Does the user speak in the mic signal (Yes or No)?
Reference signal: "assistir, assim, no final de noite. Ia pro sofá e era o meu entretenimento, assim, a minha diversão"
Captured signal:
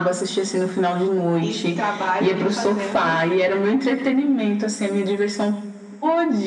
Yes